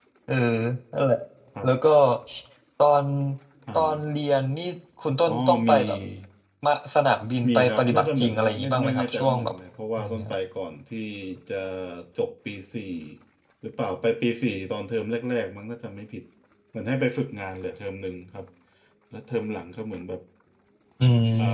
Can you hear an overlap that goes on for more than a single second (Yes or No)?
Yes